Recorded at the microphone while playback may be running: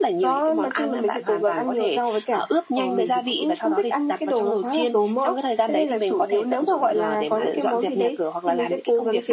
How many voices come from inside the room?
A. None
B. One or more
A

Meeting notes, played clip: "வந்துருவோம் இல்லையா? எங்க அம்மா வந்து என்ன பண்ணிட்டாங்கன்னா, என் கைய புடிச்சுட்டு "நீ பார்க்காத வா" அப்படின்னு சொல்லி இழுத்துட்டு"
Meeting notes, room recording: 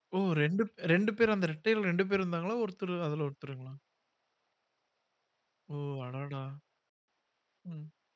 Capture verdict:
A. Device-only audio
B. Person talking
B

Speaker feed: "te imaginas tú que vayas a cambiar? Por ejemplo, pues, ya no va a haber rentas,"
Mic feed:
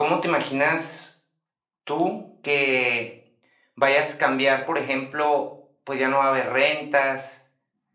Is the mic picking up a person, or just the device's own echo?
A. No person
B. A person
A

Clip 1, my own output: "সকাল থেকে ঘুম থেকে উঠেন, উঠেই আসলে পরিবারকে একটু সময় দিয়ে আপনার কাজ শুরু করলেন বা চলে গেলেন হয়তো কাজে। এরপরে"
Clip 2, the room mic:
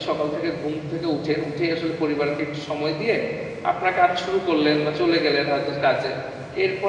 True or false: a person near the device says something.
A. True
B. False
B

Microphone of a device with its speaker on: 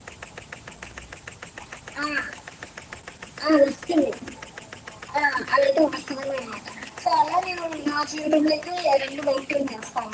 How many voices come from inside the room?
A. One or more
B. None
B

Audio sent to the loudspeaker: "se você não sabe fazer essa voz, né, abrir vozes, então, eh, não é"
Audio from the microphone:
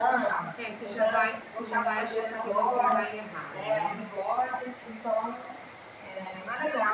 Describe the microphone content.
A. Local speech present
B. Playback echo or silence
A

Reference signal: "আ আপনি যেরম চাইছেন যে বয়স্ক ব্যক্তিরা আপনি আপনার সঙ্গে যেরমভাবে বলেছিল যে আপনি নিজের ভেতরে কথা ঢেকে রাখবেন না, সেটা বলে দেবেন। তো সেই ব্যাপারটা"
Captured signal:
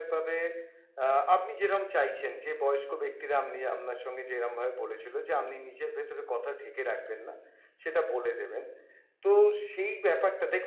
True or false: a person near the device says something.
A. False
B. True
A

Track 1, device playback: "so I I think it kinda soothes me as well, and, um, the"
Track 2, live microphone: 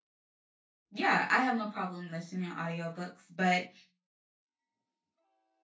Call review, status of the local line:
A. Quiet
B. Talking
B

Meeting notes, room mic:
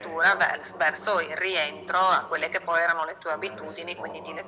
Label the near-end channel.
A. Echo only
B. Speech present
B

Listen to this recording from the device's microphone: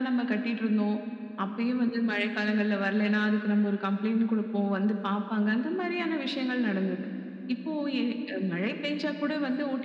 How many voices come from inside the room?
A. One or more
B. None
B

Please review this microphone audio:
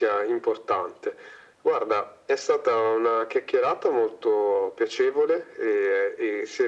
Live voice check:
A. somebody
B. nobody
B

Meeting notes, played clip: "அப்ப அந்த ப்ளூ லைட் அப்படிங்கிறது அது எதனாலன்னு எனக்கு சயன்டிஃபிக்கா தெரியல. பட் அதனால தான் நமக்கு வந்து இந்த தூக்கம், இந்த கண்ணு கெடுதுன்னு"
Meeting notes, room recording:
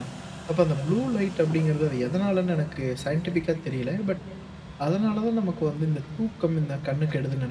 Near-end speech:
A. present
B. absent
B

